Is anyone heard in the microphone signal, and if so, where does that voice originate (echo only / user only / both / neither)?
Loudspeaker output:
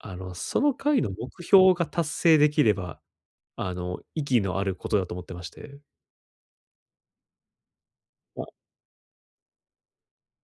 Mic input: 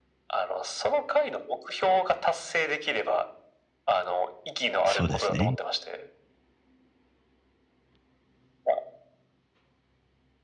both